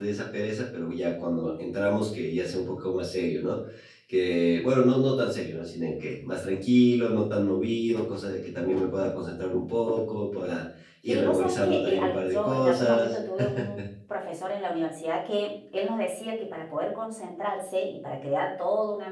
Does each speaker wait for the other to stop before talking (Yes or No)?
No